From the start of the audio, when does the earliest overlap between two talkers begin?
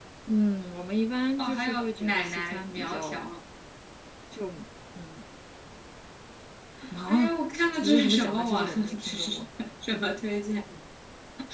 1.4 s

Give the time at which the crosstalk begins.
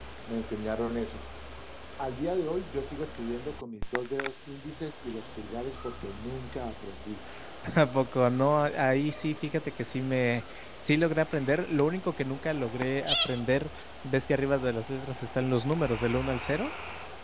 none

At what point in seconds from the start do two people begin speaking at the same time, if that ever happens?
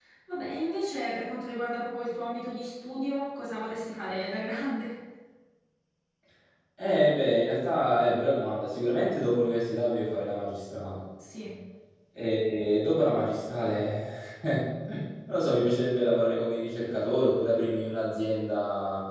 none

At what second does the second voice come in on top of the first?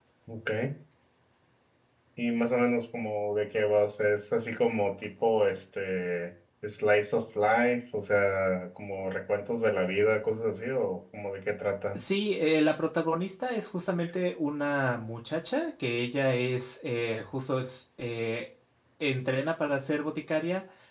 none

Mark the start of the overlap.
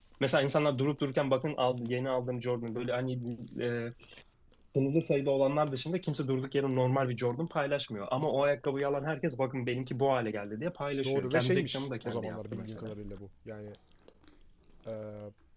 11.0 s

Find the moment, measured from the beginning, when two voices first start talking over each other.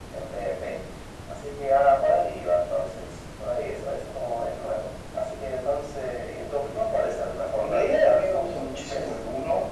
7.6 s

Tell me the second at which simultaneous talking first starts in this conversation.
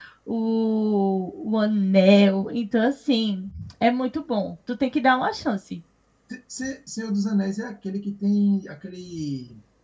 none

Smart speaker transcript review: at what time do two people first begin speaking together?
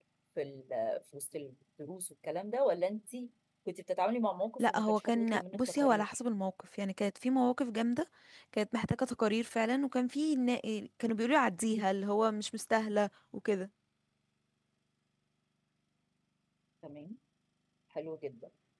4.6 s

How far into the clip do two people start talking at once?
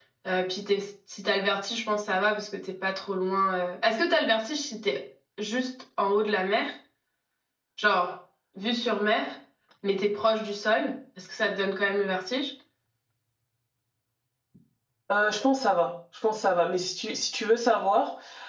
none

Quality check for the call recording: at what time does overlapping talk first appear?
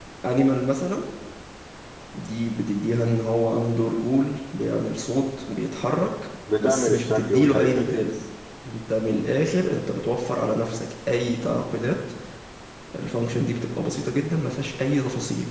6.5 s

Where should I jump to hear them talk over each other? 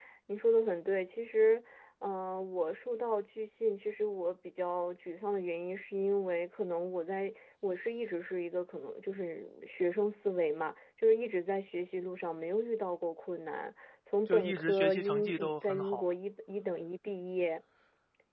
14.3 s

